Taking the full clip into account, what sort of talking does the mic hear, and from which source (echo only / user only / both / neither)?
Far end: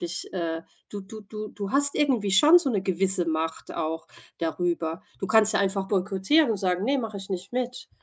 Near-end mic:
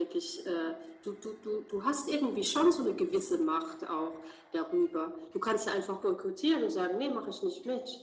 echo only